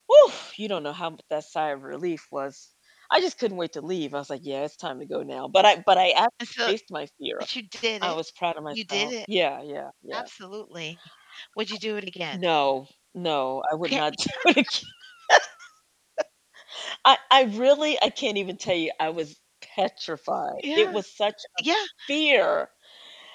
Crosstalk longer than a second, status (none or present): none